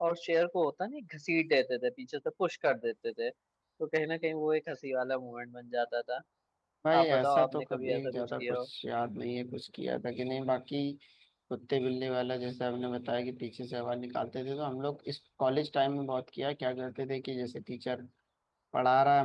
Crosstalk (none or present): present